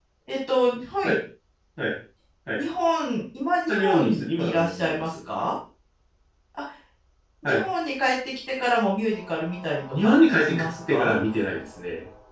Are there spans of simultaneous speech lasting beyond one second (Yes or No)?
Yes